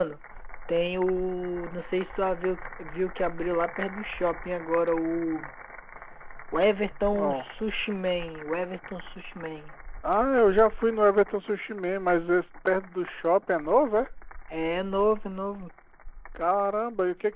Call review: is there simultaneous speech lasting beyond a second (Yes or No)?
No